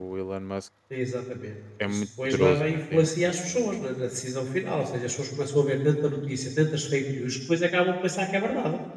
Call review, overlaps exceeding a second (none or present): present